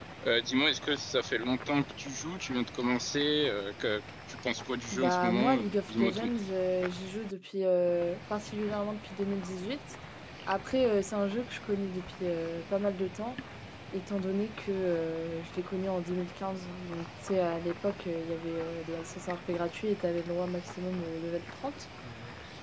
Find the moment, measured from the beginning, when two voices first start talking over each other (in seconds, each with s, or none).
4.9 s